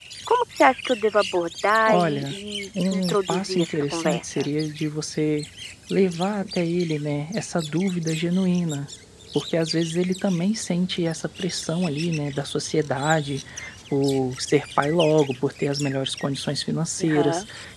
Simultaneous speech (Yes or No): Yes